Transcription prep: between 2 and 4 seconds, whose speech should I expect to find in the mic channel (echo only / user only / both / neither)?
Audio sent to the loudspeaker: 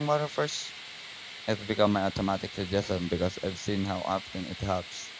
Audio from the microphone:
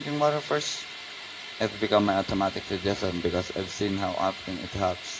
echo only